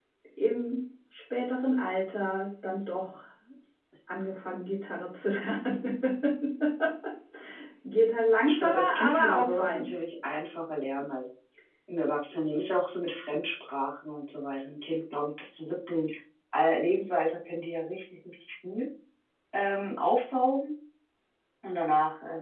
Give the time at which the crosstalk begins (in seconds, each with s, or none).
8.4 s